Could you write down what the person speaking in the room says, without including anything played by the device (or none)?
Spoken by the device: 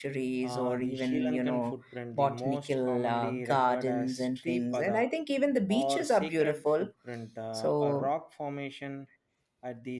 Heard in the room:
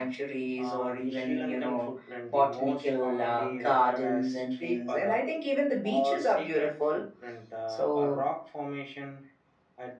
none